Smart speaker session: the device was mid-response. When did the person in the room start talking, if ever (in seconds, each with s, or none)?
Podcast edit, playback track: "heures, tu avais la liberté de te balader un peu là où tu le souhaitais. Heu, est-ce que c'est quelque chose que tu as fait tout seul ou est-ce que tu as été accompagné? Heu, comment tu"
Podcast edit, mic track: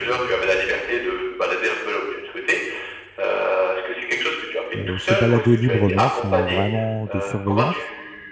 4.8 s